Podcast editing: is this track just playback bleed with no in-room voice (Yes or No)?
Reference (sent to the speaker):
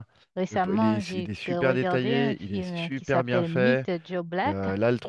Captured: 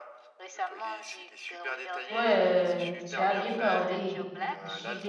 No